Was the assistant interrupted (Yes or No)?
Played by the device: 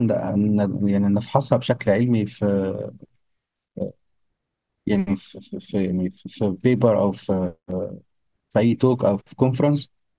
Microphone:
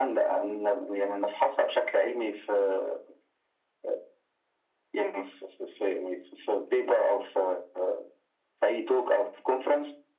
No